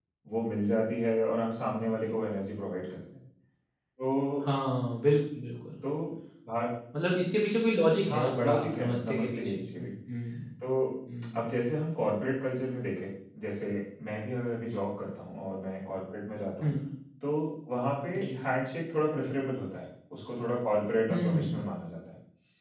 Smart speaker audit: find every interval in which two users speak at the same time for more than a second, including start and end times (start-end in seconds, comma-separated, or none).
8.1-9.9